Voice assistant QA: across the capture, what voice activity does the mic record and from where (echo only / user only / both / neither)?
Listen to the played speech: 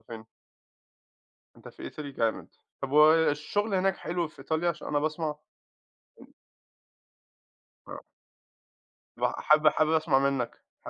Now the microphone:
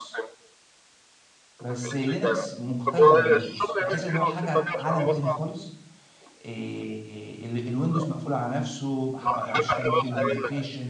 both